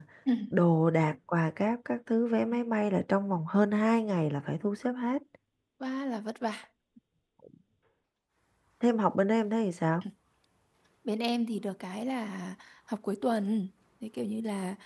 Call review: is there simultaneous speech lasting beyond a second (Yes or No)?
No